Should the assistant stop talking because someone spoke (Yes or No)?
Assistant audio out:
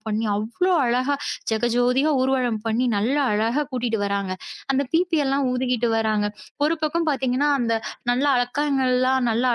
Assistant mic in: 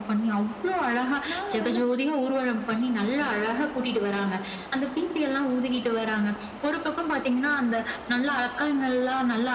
Yes